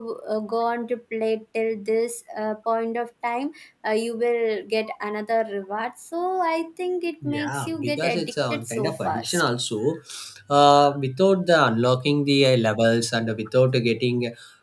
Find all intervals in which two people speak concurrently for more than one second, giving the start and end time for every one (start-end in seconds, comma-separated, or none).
7.2-9.5